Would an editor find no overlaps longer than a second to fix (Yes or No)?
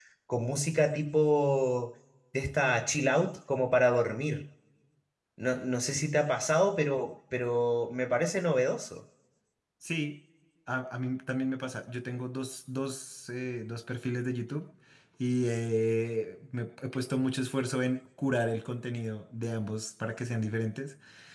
Yes